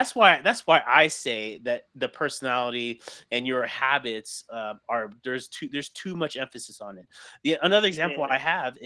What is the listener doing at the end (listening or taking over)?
listening